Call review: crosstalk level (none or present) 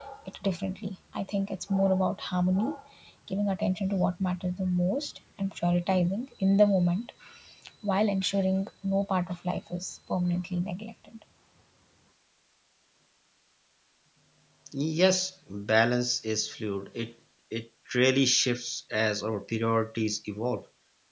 none